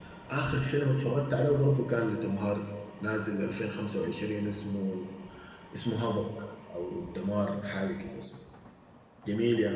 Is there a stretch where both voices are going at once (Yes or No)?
No